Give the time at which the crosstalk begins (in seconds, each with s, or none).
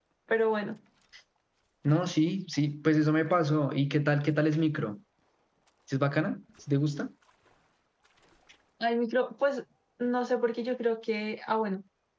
none